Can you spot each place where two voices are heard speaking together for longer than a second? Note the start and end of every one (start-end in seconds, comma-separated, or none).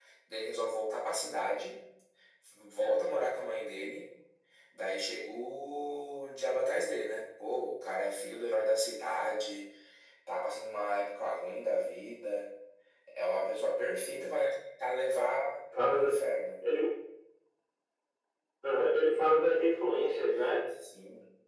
none